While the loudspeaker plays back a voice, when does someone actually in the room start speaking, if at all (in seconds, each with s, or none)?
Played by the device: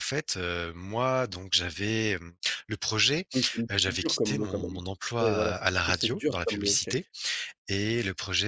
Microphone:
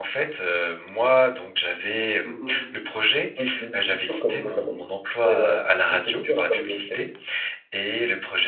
2.2 s